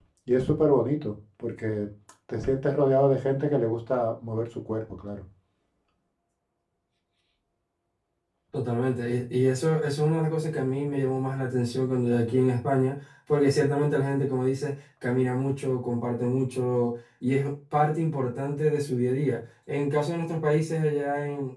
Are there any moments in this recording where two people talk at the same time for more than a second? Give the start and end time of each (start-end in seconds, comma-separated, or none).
none